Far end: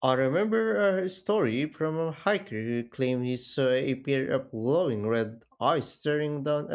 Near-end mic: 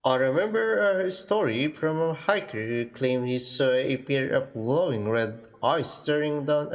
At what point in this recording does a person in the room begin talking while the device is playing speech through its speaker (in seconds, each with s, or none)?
none